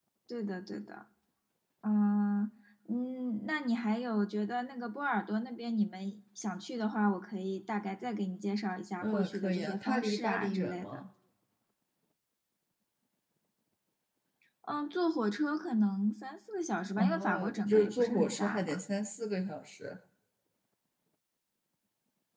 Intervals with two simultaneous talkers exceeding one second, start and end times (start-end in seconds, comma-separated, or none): 9.0-11.0, 17.0-18.8